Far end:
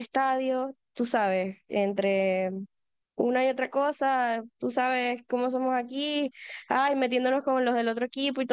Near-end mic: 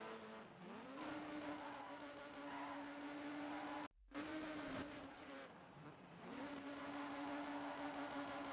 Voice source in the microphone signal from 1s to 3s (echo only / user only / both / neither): neither